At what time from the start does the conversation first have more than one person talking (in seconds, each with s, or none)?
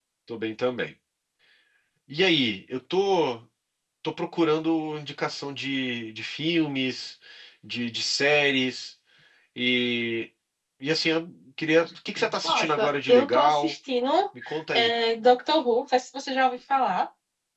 12.4 s